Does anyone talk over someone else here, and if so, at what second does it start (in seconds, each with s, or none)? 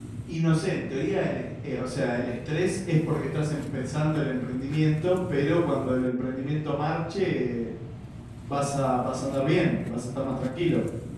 none